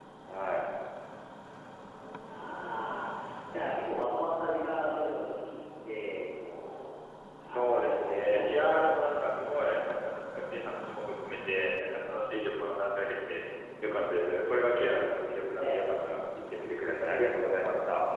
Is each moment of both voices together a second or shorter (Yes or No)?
No